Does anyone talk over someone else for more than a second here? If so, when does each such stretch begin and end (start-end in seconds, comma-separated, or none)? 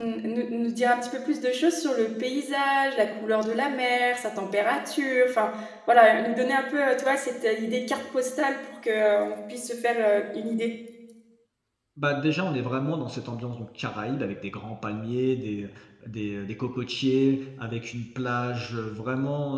none